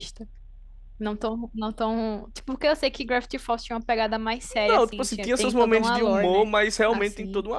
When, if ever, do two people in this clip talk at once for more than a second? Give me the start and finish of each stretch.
4.5-6.5

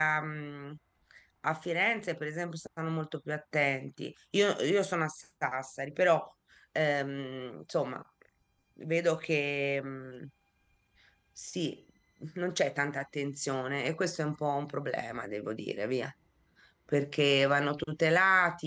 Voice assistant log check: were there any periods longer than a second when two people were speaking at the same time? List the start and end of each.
none

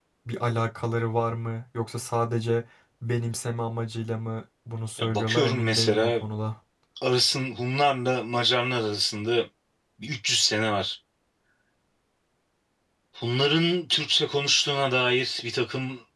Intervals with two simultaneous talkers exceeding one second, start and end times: 5.0-6.2

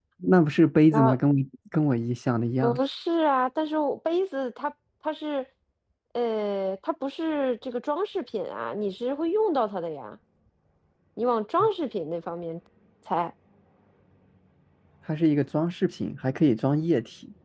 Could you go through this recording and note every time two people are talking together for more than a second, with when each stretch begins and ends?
none

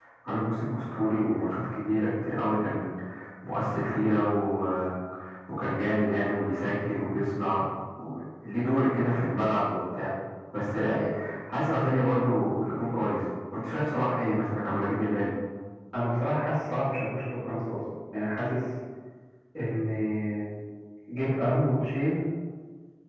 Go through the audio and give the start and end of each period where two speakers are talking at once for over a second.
none

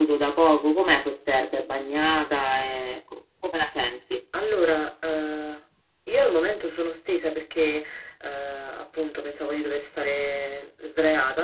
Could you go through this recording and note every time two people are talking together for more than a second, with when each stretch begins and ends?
none

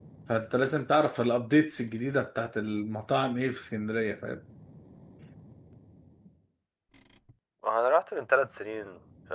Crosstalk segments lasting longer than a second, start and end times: none

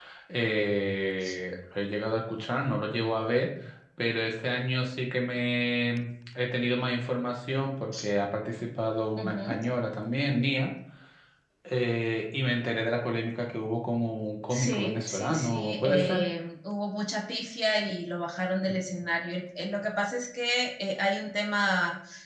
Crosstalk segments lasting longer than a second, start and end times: 14.5-16.2

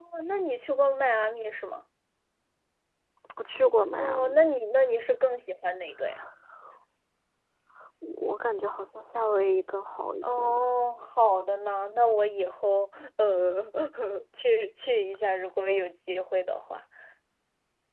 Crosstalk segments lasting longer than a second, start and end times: none

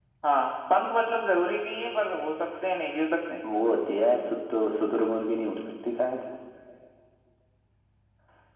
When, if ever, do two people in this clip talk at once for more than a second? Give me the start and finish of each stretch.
none

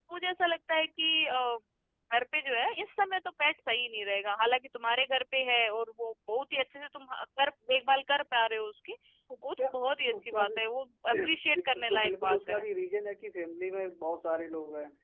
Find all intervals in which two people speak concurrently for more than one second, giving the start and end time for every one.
11.3-12.6

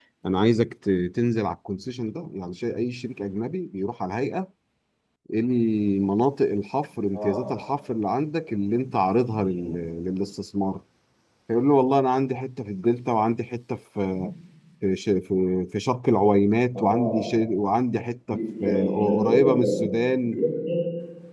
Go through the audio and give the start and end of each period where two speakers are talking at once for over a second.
18.6-19.9

